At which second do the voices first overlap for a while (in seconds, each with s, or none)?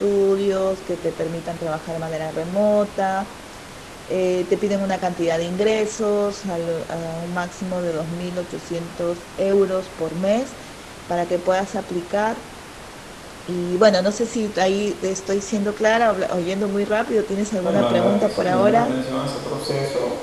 17.6 s